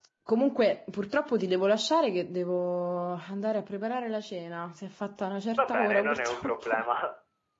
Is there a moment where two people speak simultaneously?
Yes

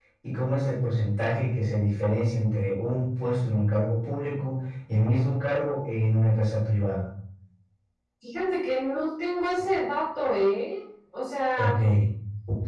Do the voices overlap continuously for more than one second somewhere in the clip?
No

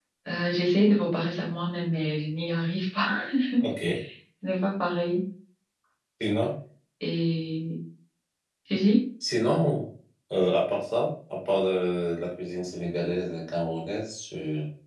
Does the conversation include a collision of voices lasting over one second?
No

